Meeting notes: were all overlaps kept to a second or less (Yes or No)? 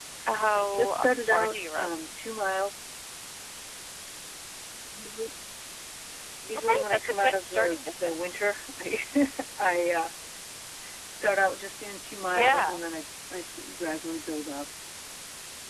No